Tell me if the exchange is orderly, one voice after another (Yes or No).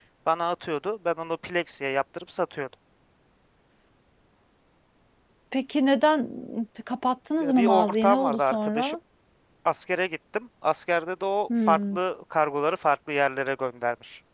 No